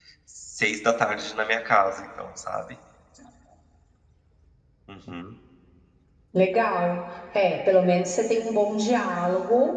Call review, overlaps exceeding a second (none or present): none